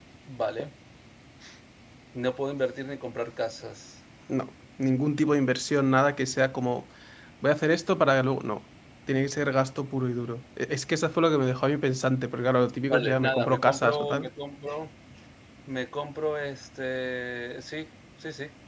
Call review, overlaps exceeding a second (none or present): present